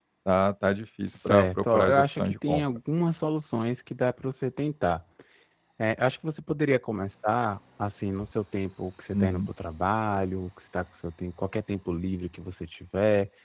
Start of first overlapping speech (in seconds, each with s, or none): 1.1 s